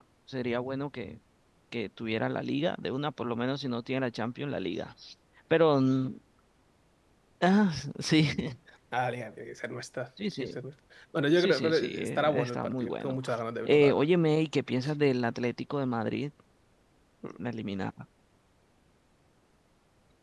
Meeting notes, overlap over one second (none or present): present